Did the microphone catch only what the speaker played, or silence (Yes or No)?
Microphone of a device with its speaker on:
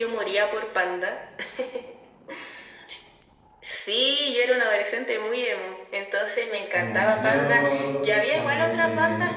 No